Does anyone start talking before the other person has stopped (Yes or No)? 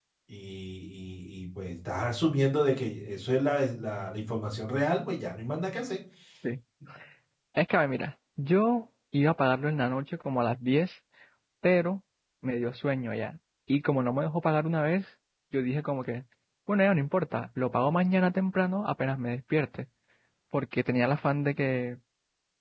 No